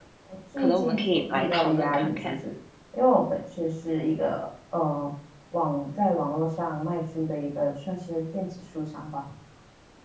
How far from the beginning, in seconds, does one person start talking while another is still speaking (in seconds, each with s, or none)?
0.6 s